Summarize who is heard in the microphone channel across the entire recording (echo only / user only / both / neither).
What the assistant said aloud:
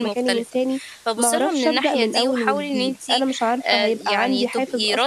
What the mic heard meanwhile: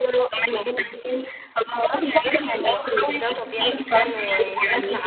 both